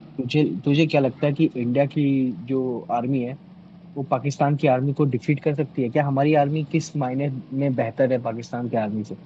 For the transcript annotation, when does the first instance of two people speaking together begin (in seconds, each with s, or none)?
none